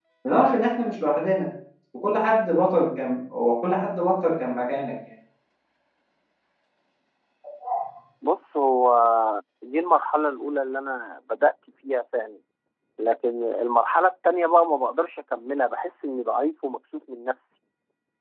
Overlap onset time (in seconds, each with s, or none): none